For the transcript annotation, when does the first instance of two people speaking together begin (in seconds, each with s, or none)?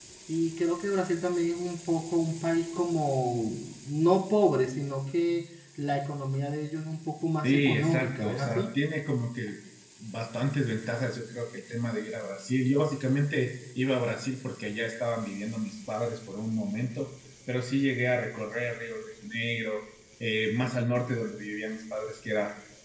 7.4 s